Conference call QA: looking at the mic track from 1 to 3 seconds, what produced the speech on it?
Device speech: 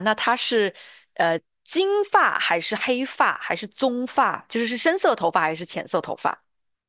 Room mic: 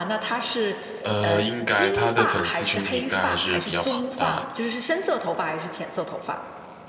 both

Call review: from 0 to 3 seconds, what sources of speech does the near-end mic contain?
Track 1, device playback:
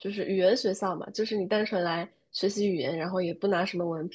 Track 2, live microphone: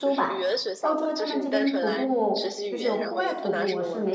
both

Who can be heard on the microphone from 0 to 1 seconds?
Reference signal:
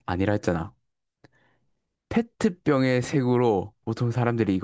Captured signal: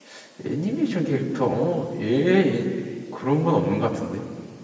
user only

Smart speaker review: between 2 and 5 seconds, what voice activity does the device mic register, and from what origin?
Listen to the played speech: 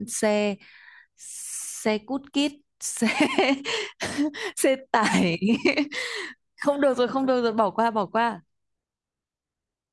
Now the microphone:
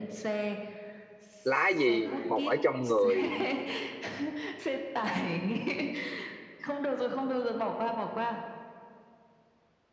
both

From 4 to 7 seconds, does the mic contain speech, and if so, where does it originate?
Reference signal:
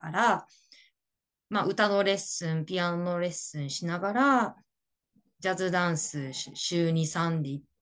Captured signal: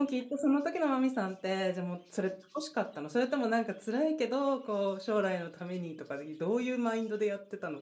user only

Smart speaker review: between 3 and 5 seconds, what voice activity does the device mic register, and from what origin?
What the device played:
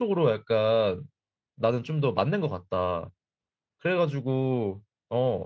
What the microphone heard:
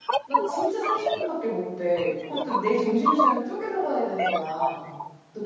both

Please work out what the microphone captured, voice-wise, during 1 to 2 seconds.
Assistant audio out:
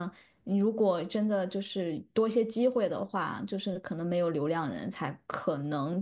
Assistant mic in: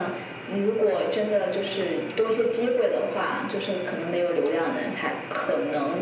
echo only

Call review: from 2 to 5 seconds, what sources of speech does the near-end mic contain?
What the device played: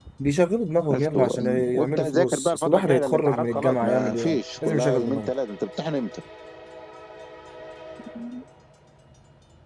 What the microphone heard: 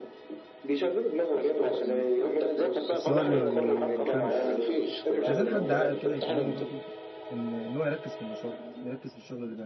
both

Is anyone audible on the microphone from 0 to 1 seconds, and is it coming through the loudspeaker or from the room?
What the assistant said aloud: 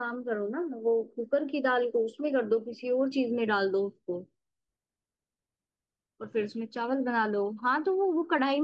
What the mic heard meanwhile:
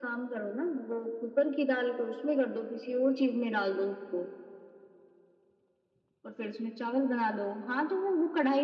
echo only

